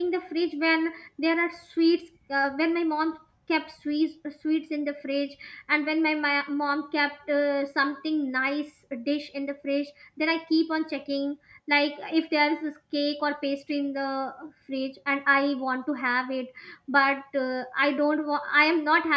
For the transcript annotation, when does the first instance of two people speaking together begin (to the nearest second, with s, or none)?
none